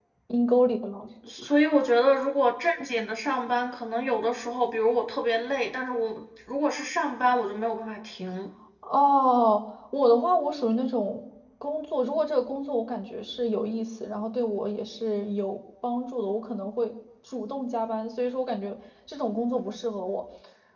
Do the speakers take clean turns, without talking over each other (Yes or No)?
Yes